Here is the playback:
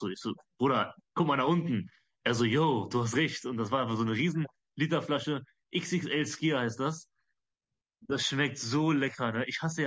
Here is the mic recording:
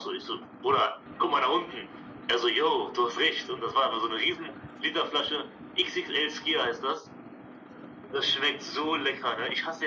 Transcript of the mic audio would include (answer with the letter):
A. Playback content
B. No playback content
A